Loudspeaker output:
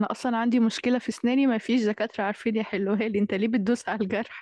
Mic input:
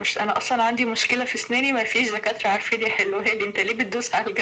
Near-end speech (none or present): none